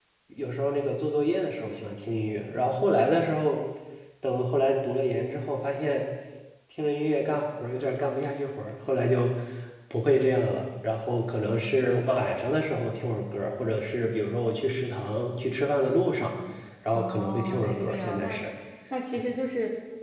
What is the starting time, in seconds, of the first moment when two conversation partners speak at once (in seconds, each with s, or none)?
16.9 s